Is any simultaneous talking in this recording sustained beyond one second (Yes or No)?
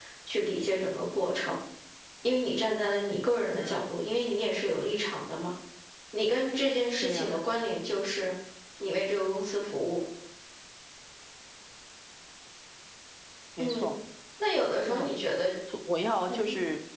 No